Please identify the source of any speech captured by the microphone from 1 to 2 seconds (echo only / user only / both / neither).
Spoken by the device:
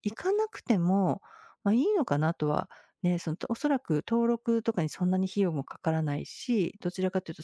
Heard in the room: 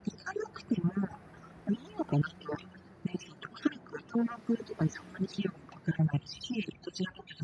echo only